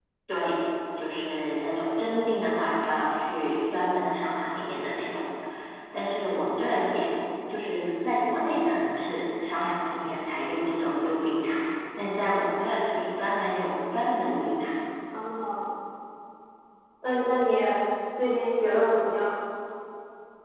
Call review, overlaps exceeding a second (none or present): none